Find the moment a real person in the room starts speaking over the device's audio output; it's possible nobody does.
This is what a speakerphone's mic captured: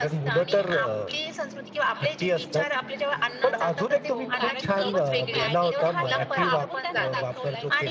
3.4 s

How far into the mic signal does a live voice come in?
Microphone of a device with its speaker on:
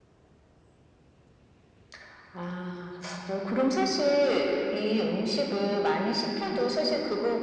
none

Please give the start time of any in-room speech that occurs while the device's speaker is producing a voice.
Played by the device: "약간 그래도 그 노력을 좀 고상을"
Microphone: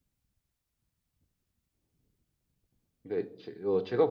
3.0 s

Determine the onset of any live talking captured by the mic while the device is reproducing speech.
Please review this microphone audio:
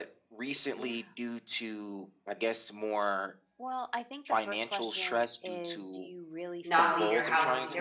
6.6 s

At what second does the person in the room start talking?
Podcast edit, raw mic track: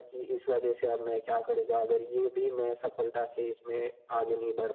none

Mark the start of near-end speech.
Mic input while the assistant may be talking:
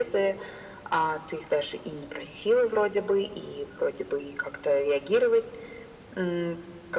none

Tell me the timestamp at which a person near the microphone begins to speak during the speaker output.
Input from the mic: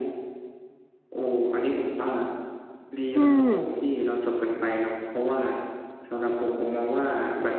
3.1 s

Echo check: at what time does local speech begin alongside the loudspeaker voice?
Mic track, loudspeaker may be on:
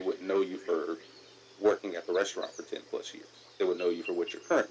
none

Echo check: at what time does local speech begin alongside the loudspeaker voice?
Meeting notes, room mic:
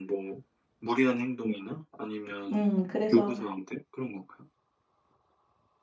2.5 s

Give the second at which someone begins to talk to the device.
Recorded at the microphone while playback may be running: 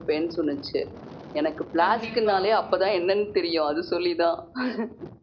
1.8 s

